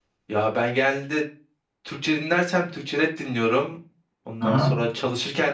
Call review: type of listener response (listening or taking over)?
listening